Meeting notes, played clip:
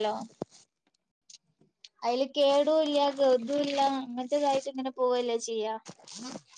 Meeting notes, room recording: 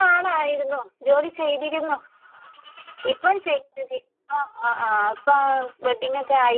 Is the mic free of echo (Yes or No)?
Yes